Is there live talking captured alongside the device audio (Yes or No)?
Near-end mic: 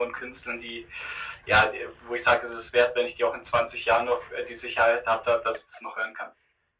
No